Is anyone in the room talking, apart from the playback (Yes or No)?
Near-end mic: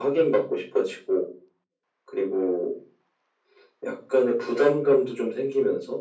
No